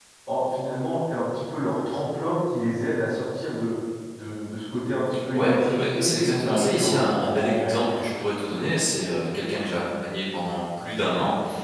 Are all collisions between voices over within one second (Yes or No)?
No